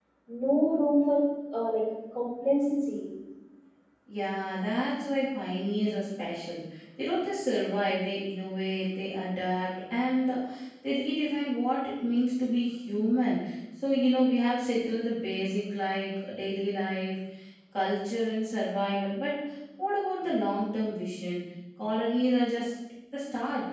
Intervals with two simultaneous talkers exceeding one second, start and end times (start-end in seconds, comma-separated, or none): none